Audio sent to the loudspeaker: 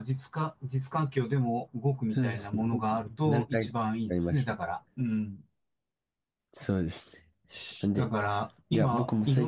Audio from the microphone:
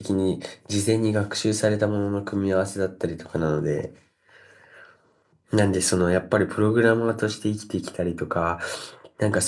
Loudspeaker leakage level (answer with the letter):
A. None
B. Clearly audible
A